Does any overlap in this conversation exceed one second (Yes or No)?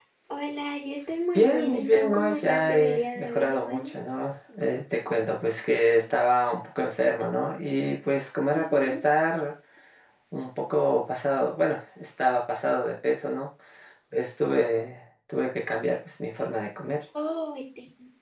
Yes